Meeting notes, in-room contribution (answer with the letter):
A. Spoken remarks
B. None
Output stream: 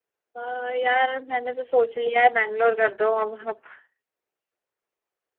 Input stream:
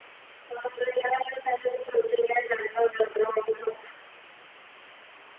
B